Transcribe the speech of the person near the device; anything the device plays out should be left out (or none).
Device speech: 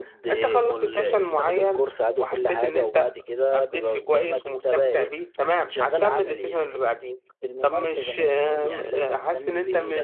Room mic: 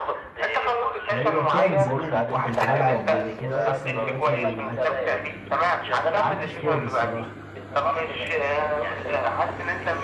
هو كان زمان يعني كنت بلعب كورة بس دلوقتي ما عادش يعني ما عدتش فاضي الصراحة